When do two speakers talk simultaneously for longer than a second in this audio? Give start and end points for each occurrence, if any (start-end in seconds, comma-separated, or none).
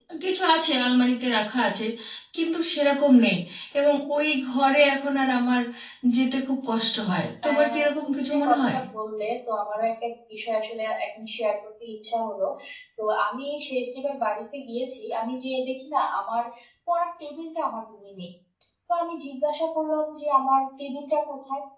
7.5-8.8